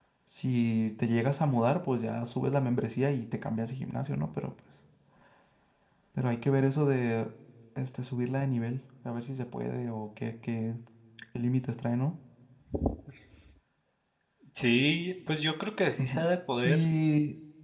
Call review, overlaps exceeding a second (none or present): none